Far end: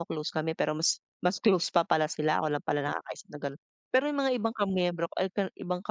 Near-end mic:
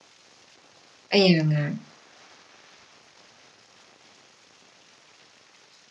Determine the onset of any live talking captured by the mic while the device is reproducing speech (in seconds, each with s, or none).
1.1 s